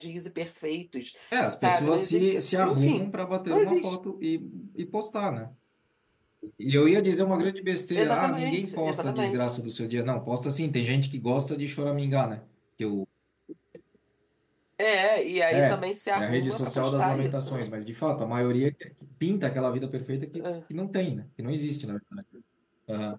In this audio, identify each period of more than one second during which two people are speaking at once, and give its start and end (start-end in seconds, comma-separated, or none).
1.6-3.1, 8.0-9.4, 15.5-17.7